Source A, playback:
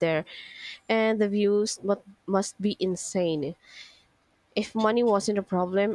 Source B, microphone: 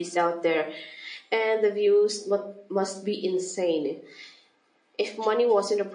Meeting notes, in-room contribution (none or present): none